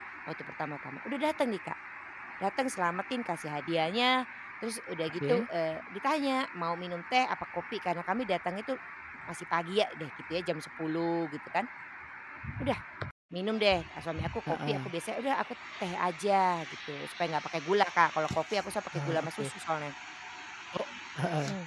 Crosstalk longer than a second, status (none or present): none